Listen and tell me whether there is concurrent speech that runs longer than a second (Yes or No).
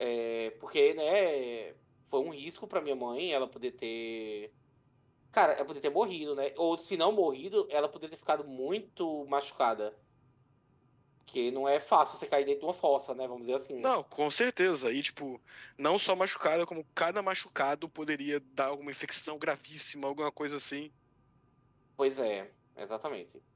No